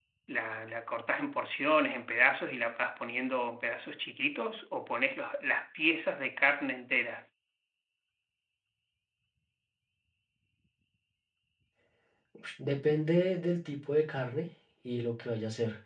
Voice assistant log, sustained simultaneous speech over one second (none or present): none